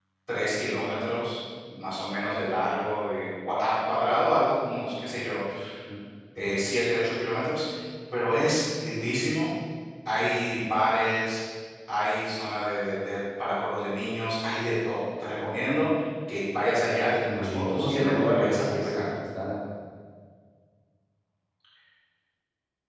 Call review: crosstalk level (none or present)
present